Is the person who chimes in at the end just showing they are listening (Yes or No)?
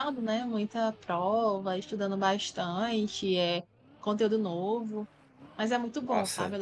Yes